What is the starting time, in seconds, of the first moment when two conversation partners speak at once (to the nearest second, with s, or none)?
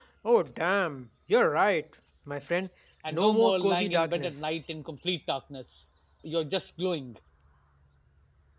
3 s